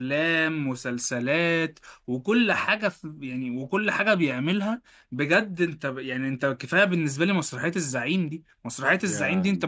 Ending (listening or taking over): listening